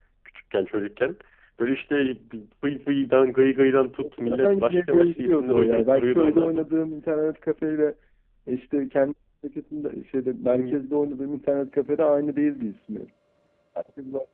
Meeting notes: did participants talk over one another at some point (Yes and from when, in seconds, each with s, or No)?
Yes, from 4.0 s